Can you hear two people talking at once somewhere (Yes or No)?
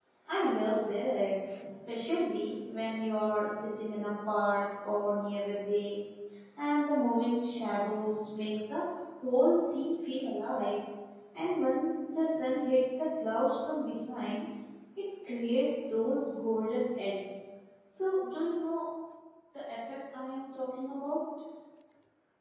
No